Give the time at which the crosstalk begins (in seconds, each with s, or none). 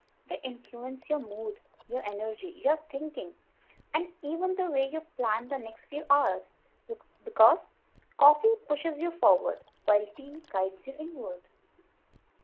none